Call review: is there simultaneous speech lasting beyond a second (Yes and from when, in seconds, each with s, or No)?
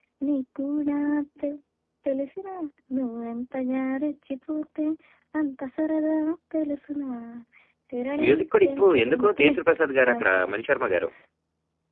Yes, from 8.2 s